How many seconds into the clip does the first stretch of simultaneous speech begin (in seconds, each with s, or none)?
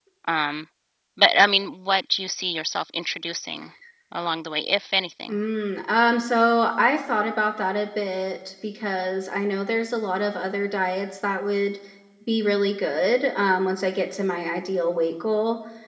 none